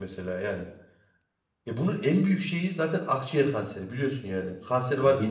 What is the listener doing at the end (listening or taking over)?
listening